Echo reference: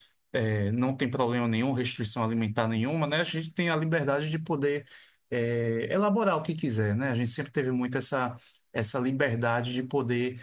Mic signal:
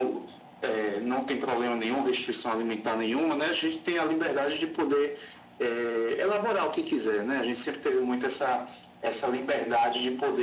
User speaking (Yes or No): No